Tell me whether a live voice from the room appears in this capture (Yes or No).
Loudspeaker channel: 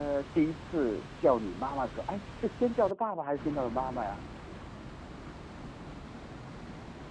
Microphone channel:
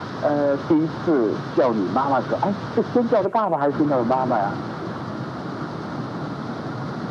No